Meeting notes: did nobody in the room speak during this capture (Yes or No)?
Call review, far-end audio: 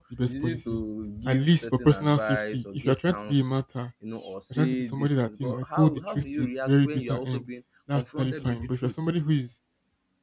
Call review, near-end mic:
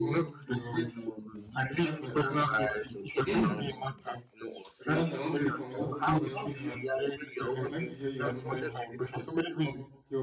No